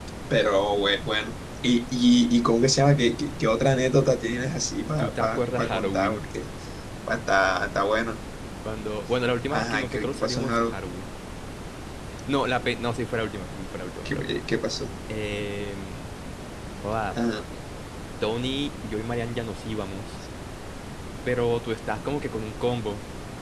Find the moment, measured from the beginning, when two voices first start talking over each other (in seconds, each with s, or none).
5.0 s